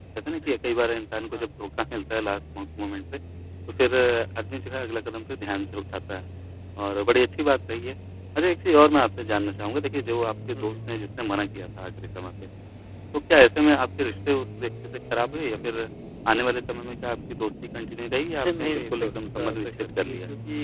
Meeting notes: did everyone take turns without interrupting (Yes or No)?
No